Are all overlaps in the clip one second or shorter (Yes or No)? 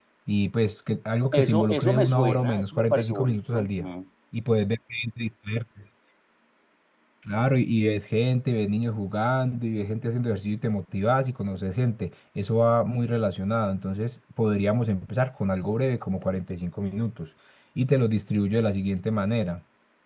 No